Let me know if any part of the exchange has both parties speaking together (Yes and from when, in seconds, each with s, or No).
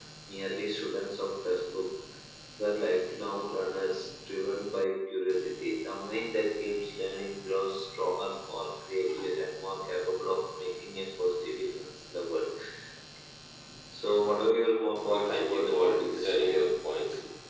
Yes, from 15.1 s